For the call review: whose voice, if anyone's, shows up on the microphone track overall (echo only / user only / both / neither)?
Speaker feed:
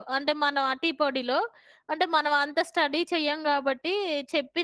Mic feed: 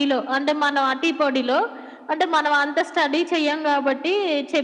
echo only